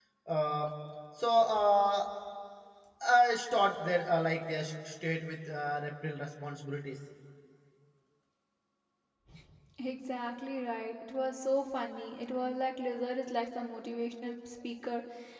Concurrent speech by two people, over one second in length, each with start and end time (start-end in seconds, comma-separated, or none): none